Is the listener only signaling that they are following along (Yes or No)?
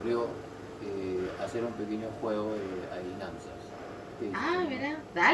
No